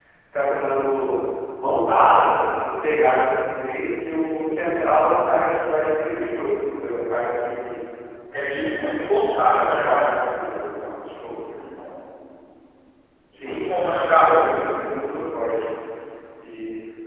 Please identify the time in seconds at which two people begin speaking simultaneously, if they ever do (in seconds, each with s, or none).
8.4 s